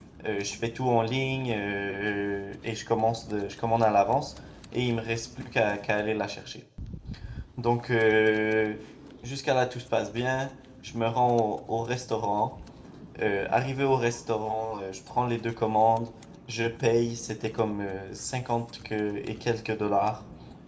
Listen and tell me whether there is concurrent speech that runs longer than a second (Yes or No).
No